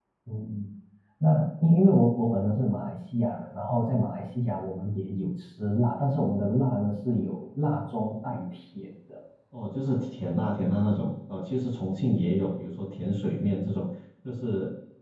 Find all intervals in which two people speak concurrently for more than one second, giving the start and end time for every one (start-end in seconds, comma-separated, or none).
none